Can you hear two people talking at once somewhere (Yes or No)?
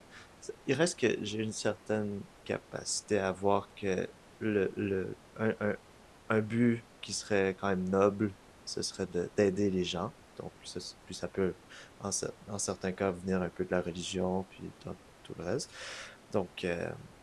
No